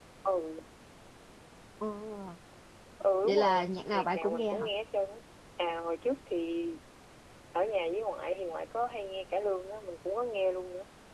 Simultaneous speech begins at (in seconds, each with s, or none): 3.2 s